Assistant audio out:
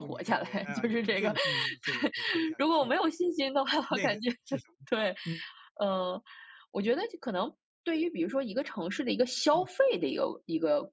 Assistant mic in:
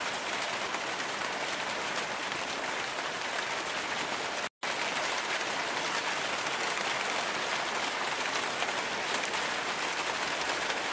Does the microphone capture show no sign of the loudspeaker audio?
Yes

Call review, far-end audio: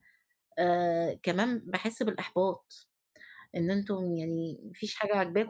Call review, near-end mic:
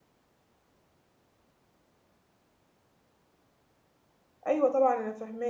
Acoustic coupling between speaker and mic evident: No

